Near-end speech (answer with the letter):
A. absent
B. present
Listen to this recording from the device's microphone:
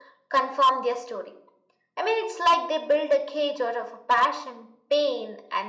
A